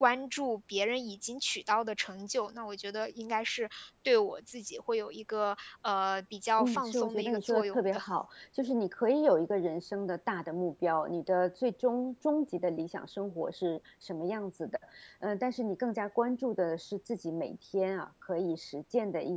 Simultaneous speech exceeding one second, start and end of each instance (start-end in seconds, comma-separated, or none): 6.6-8.0